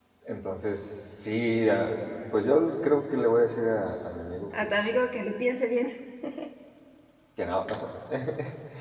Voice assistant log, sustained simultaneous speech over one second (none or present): none